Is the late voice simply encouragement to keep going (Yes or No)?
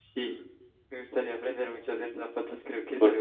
Yes